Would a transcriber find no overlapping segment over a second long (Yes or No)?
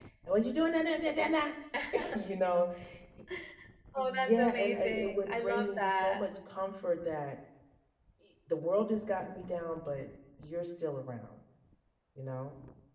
No